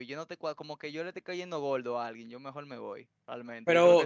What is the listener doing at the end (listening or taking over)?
taking over